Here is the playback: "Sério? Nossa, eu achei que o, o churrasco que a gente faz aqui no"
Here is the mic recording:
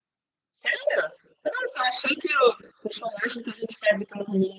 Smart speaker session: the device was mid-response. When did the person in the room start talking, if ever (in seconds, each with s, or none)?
none